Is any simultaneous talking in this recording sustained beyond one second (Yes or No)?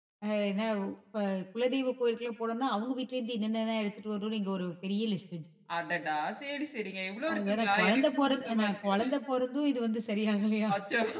Yes